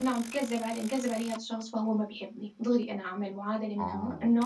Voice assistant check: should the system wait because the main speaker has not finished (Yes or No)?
Yes